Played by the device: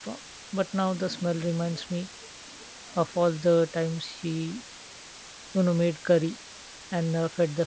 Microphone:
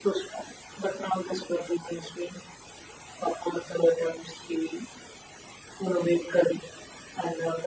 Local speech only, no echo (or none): none